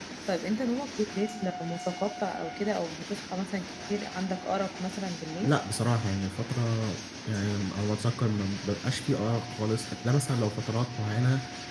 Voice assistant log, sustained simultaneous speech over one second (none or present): none